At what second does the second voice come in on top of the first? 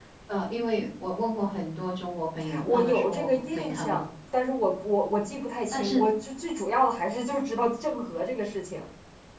2.6 s

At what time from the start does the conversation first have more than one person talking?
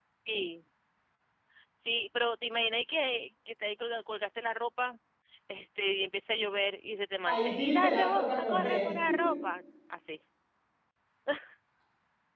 7.2 s

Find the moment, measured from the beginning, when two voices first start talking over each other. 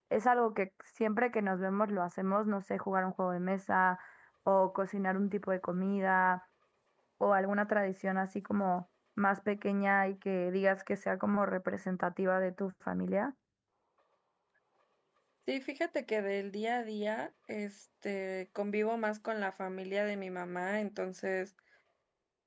none

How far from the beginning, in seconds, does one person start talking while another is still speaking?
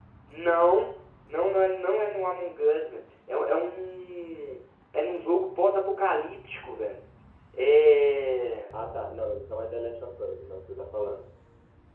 none

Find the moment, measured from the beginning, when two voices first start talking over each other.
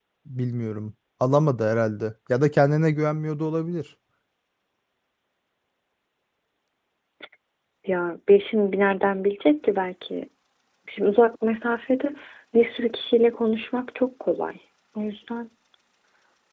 none

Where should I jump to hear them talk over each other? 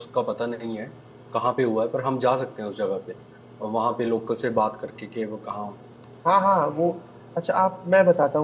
none

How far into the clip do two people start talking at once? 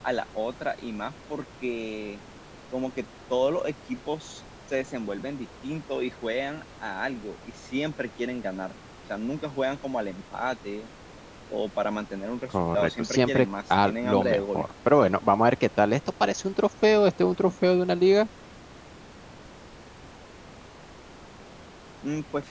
12.5 s

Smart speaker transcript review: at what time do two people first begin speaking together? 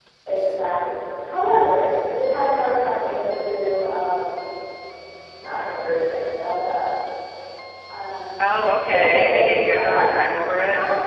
8.8 s

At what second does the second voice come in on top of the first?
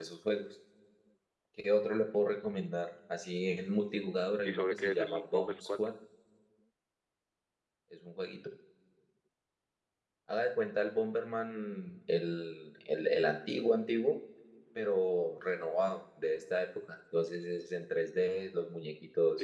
4.4 s

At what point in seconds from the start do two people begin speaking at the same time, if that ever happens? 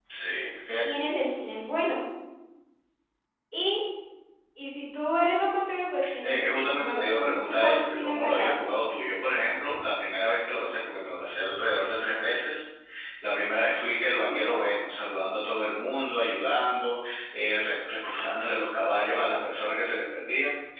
6.0 s

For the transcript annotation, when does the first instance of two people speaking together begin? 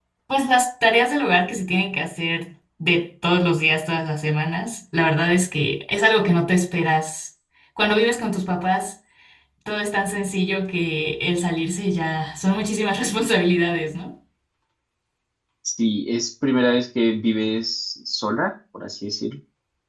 none

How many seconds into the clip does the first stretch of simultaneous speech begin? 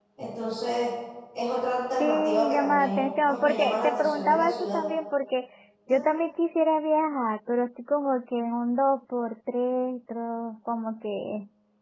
2.0 s

